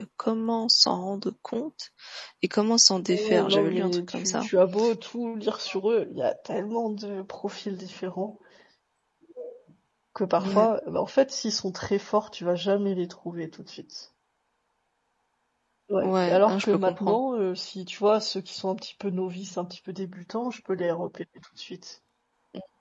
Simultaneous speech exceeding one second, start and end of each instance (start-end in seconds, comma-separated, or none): 3.1-4.5, 16.0-17.2